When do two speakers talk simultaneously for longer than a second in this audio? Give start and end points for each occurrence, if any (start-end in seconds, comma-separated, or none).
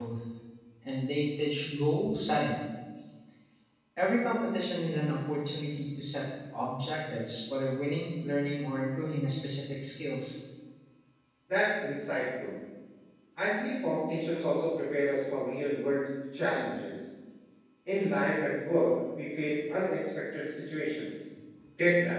none